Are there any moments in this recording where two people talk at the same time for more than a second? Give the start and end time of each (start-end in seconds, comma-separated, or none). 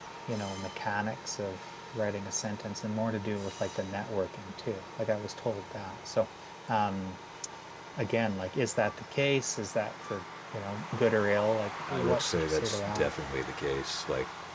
11.9-13.2